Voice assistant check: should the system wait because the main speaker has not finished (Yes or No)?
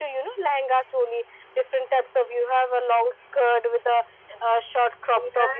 Yes